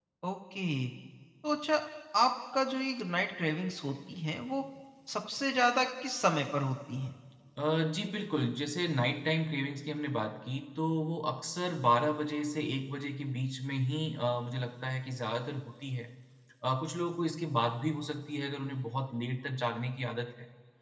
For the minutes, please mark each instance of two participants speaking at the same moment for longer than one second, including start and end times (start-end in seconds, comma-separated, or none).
none